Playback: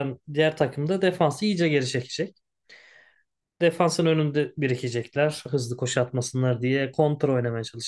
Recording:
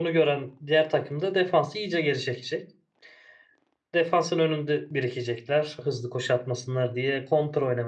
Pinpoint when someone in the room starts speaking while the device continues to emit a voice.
none

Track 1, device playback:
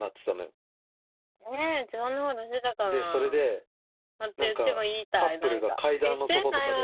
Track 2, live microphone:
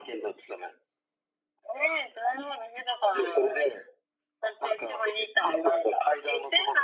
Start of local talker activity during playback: none

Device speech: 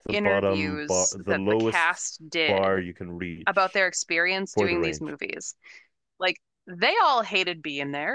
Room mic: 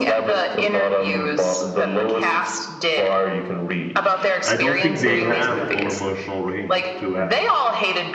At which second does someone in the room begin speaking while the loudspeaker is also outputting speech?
4.4 s

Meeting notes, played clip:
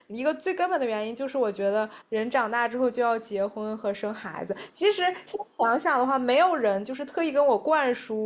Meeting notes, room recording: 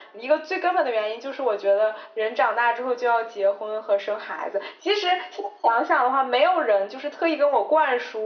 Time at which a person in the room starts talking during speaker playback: none

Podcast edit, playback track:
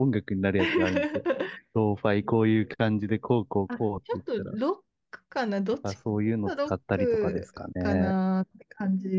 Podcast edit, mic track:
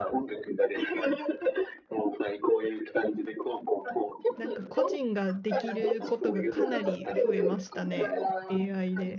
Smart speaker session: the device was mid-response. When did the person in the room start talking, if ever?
4.3 s

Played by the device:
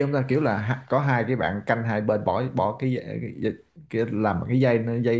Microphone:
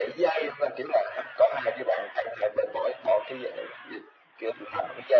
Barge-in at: none

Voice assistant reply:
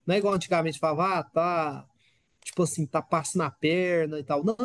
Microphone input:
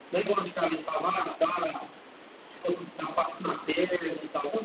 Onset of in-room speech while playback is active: none

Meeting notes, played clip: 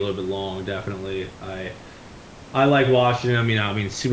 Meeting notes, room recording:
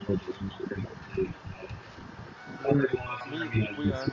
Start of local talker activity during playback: 3.2 s

